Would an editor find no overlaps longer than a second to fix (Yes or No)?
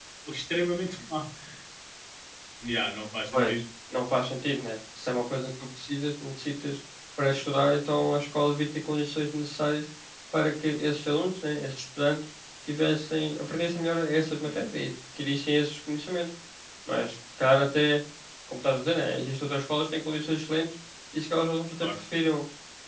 Yes